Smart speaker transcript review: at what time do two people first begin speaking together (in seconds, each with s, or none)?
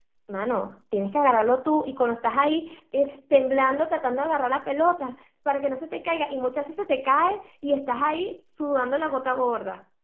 none